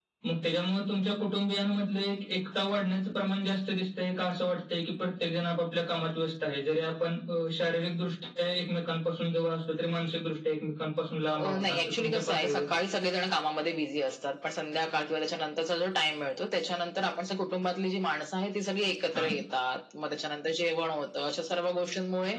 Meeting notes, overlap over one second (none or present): present